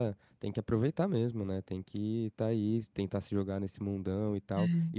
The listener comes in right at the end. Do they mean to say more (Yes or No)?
No